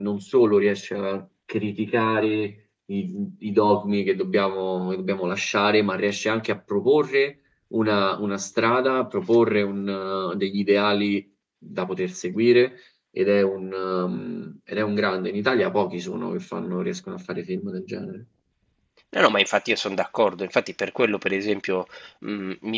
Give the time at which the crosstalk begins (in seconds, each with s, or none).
none